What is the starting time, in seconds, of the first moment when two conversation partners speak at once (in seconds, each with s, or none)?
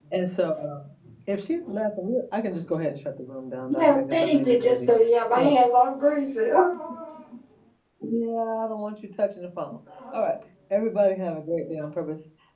3.7 s